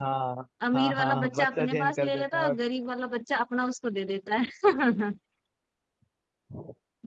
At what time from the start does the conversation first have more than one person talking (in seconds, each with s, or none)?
0.8 s